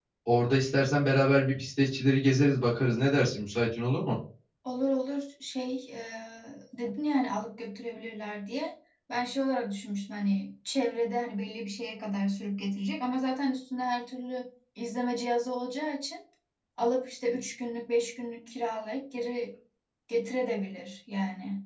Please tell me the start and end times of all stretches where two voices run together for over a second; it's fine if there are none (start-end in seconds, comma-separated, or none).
none